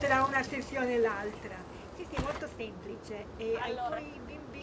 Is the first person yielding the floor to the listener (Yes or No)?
No